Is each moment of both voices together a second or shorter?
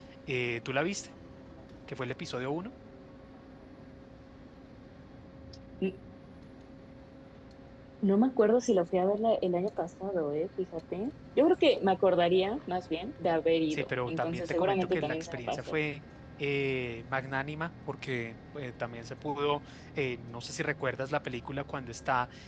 No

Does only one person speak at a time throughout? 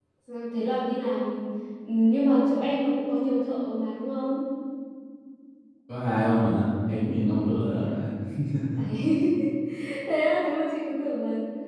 Yes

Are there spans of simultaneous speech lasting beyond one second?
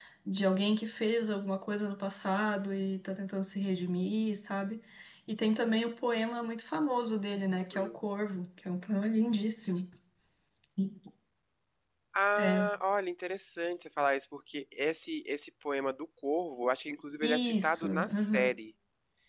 Yes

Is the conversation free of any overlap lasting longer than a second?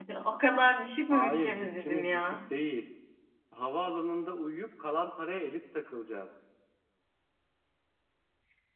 No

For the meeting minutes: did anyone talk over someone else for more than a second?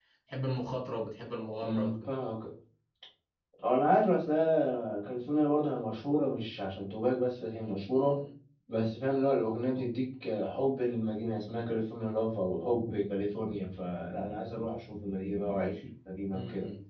No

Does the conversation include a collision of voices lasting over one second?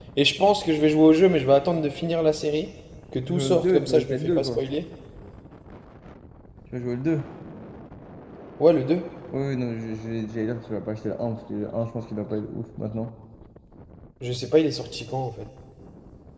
Yes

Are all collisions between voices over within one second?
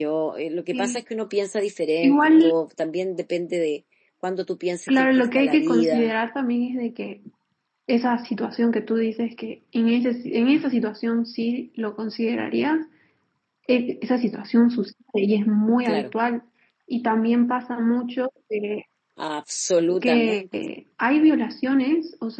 No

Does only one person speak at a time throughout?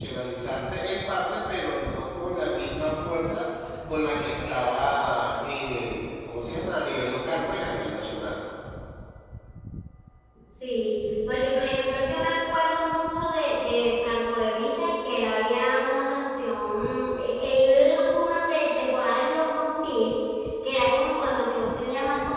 Yes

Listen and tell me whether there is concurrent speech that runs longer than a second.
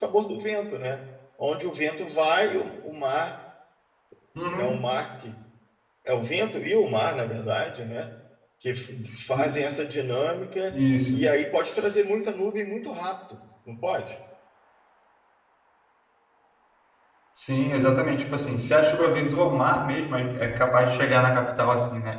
No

